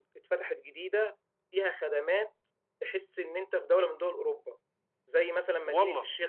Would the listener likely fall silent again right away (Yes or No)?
Yes